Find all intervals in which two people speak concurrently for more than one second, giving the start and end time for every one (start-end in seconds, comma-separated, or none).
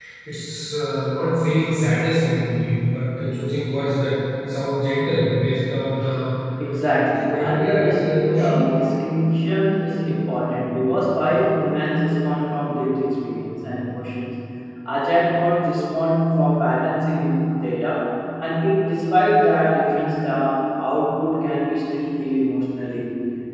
6.9-8.6